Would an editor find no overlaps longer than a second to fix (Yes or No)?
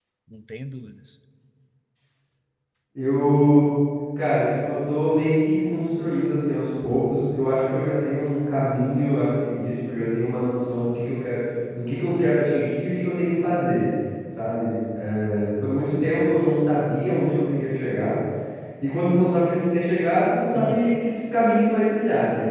Yes